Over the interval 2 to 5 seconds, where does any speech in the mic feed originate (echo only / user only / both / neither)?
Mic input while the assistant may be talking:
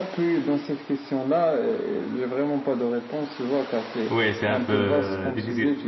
both